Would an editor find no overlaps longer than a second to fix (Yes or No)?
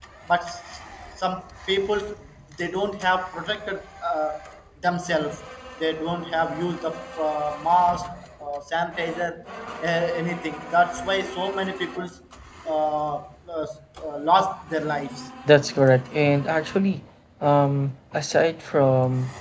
Yes